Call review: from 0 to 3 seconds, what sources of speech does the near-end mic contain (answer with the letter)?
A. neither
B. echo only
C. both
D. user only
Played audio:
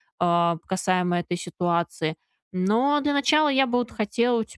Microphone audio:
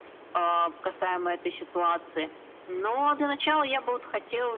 B